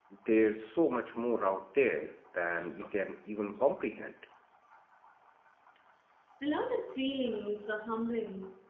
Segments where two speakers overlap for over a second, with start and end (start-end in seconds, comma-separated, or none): none